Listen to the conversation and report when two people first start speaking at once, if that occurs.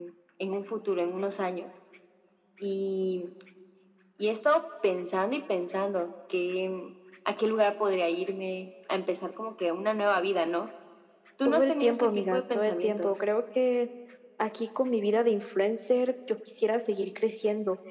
11 s

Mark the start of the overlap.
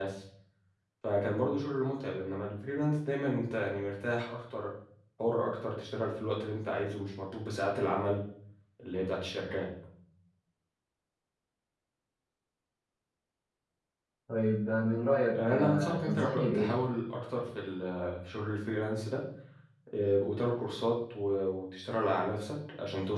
15 s

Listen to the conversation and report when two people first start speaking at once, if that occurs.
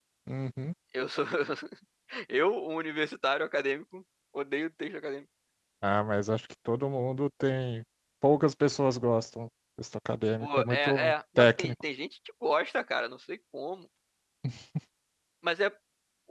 10 s

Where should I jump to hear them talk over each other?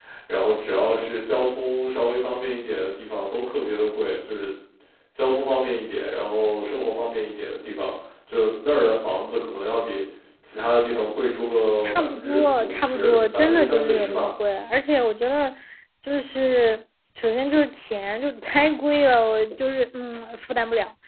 12 s

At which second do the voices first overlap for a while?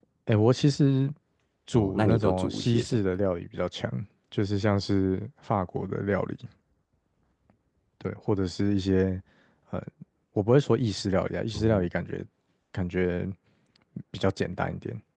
2 s

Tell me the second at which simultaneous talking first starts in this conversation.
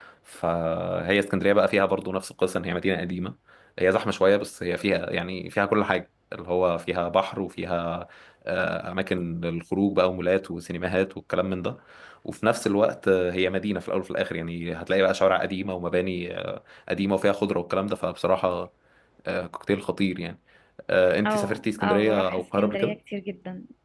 21 s

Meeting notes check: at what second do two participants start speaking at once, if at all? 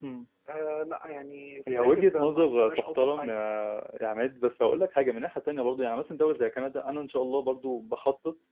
2 s

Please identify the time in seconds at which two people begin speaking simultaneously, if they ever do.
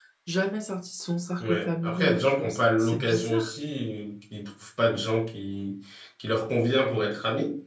1 s

